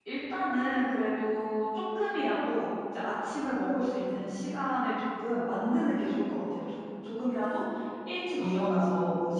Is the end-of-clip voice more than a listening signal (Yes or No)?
No